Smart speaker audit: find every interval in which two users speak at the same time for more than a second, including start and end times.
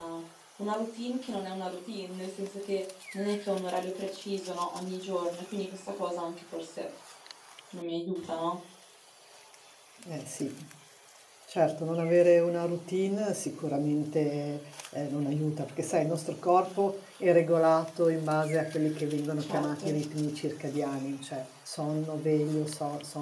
none

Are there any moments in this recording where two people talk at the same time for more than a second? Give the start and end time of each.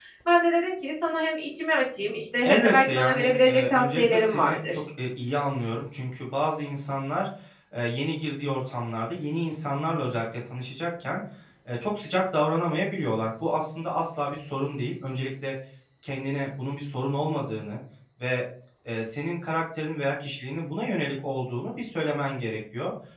2.5-4.8

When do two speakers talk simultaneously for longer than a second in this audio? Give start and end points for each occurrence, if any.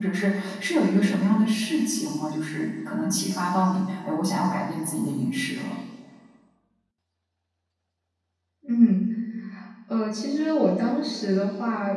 none

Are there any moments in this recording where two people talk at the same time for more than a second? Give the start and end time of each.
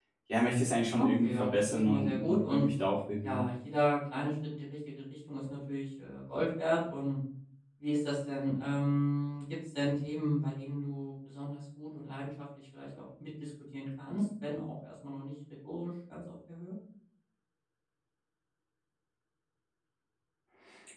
1.0-2.7

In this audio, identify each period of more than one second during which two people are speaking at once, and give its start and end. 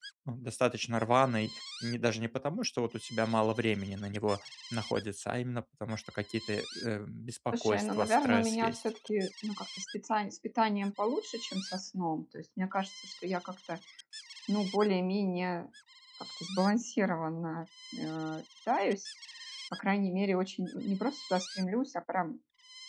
7.5-8.8

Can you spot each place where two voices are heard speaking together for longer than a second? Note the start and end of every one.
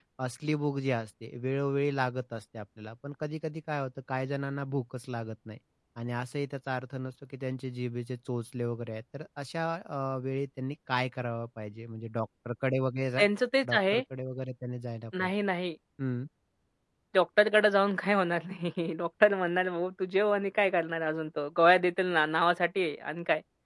none

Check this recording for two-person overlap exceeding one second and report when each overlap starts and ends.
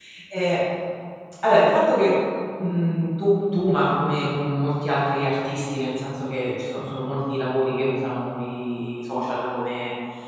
none

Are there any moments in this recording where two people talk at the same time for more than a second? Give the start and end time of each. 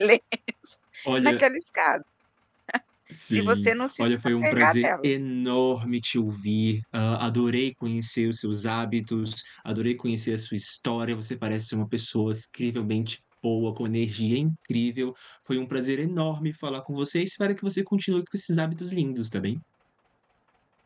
3.3-5.1

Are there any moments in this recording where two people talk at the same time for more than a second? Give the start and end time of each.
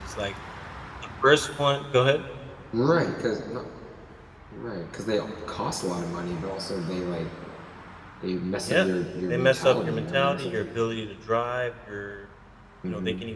9.3-10.8

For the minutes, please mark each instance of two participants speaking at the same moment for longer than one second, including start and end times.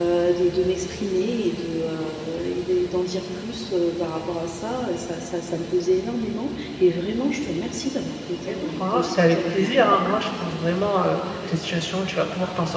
8.4-9.7

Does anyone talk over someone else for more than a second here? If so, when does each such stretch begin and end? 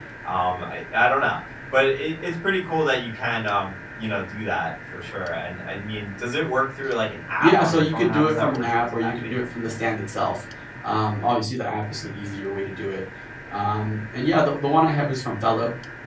7.4-9.3

